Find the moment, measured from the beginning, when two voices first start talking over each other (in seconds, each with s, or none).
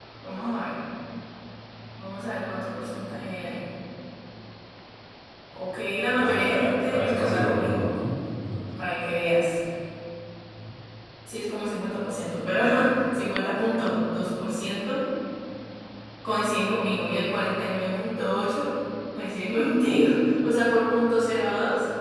6.2 s